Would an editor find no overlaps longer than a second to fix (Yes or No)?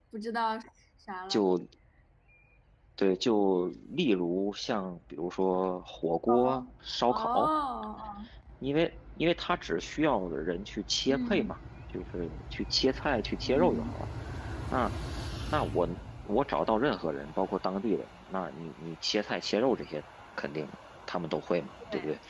Yes